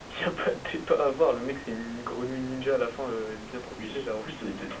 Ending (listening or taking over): taking over